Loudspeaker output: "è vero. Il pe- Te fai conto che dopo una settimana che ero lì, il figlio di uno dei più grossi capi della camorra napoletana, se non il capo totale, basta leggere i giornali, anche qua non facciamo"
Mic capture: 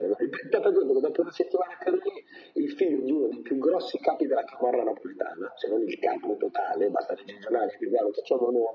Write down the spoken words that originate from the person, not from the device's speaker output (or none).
none